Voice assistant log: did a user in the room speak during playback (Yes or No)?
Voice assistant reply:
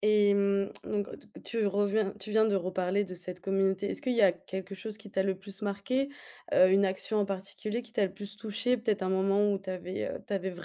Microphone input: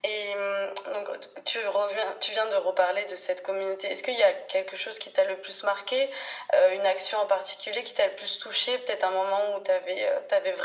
No